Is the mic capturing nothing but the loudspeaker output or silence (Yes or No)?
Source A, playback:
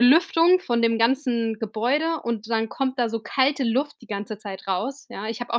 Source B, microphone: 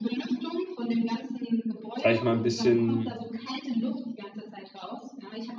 No